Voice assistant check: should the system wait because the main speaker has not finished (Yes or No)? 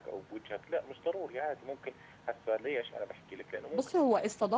No